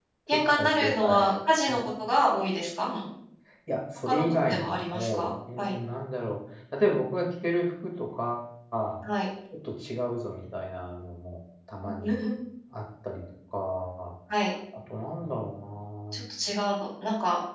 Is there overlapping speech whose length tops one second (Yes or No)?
Yes